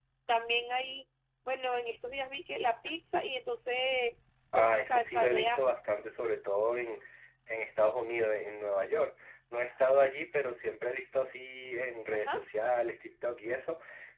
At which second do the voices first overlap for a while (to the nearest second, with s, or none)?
5 s